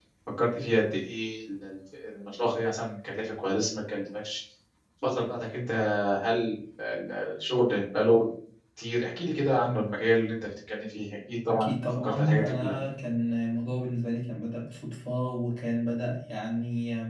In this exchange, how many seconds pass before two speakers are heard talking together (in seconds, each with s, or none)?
11.5 s